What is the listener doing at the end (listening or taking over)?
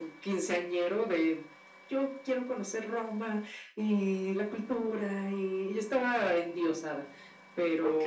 taking over